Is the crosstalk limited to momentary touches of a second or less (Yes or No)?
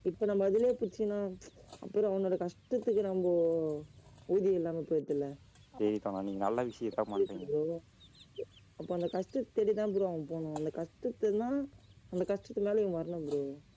Yes